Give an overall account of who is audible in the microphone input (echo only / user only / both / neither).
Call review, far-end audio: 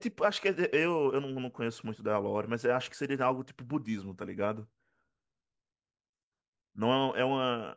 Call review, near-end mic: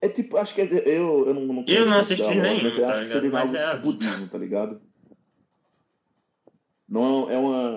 both